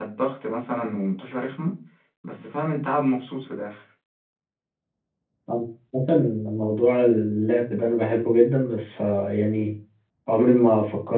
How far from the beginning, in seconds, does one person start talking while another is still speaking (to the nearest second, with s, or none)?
none